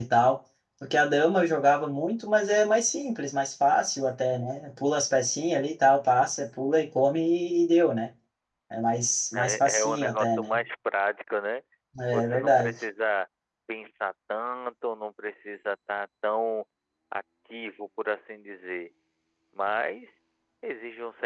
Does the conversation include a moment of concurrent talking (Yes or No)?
Yes